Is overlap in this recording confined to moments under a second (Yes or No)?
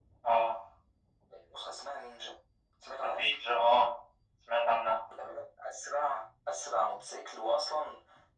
Yes